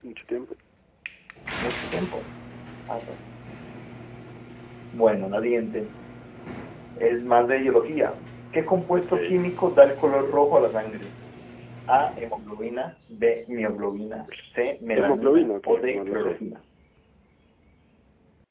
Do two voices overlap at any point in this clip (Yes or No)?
Yes